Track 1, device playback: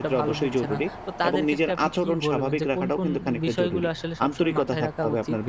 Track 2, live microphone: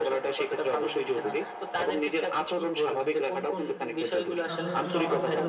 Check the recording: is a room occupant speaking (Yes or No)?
Yes